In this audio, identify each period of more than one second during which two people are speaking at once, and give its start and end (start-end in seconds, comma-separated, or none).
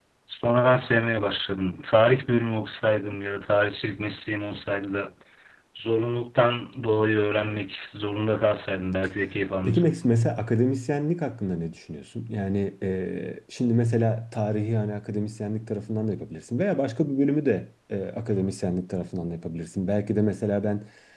none